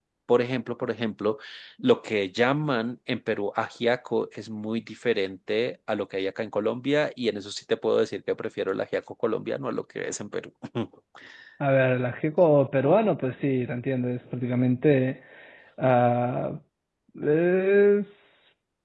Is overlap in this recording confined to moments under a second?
Yes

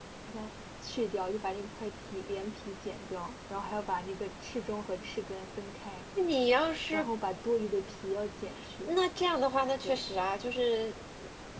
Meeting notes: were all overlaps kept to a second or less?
Yes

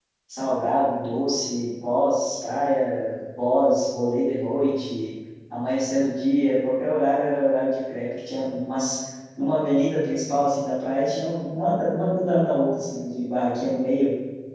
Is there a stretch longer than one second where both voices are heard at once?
No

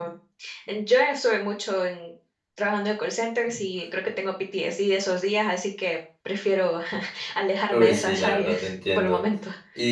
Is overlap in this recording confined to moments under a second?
No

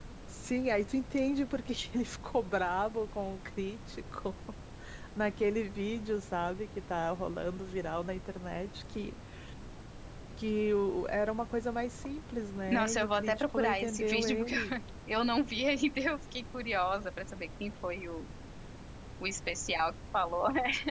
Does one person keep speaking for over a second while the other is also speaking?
Yes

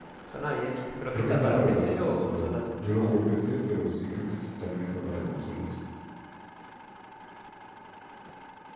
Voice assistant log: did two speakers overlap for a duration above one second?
Yes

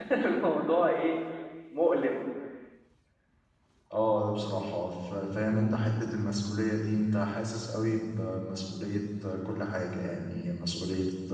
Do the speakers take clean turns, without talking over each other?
Yes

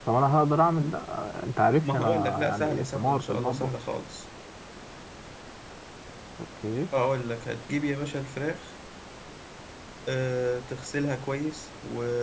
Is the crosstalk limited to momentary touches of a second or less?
No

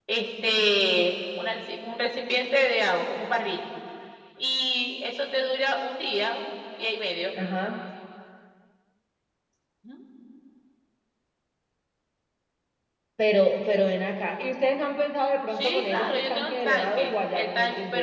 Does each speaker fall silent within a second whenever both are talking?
No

